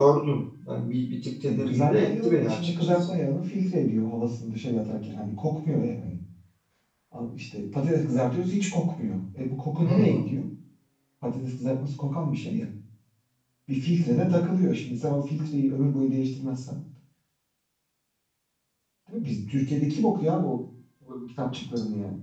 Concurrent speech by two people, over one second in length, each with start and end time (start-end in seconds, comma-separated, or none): 1.4-3.1